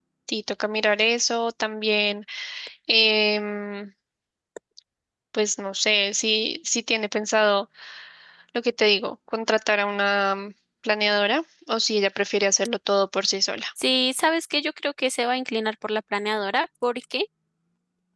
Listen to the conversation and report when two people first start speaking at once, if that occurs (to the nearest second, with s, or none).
none